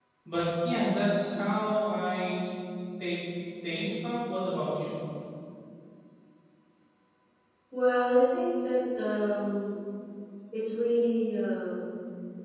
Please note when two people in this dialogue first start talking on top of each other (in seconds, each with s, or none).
none